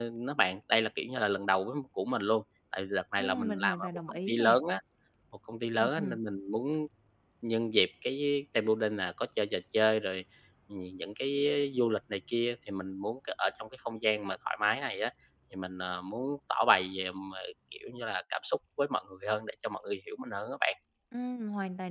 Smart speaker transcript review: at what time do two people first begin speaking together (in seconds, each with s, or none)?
3.2 s